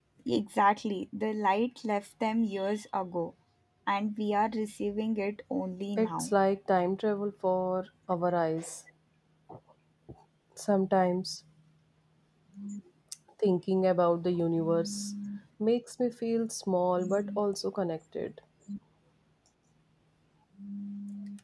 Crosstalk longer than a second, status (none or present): none